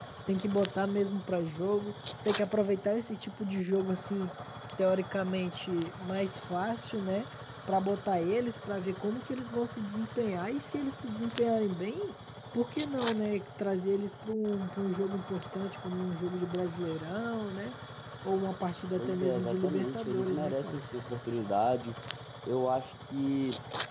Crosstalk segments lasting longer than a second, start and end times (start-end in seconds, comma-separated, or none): 19.0-20.8